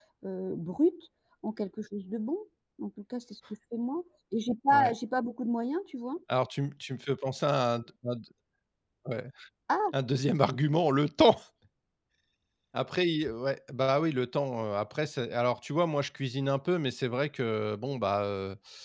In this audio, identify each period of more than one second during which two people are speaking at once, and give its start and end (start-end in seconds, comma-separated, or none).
none